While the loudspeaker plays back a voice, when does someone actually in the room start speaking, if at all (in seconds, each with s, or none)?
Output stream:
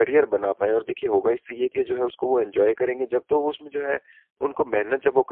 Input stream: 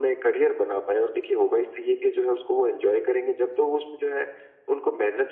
none